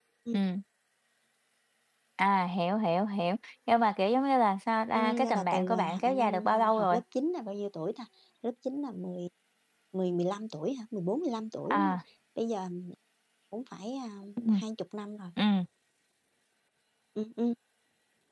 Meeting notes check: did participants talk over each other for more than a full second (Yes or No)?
Yes